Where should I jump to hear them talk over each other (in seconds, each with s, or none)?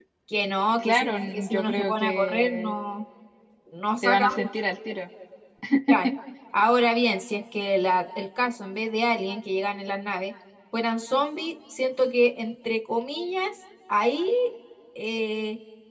0.8 s